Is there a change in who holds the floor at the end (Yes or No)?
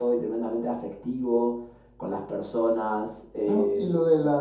Yes